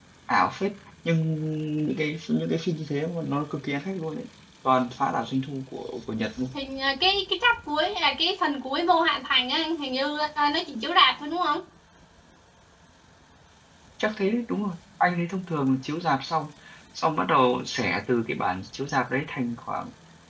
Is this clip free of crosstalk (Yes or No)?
Yes